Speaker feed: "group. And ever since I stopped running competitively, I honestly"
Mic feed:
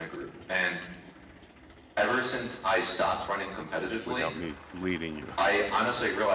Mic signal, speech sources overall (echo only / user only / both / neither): both